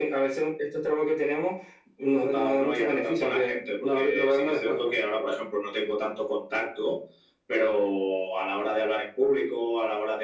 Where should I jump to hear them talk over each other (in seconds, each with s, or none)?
2.2 s